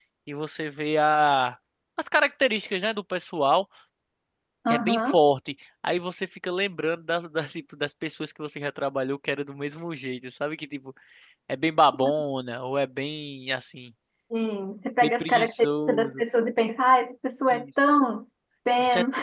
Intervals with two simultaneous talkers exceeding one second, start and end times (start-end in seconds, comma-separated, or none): 15.0-16.2